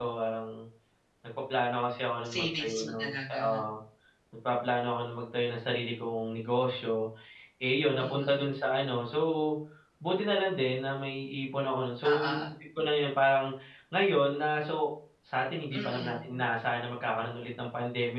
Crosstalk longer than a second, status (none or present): present